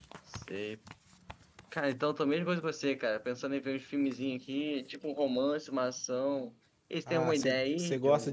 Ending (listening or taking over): taking over